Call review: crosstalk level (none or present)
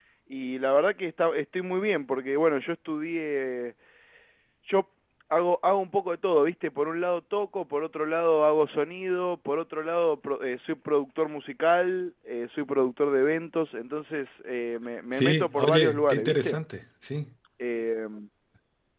present